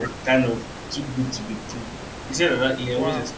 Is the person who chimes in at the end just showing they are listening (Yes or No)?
Yes